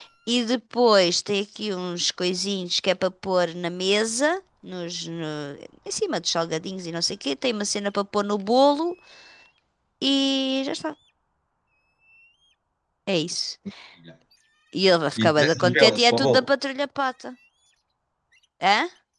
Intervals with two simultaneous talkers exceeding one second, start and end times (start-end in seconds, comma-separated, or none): 15.2-16.5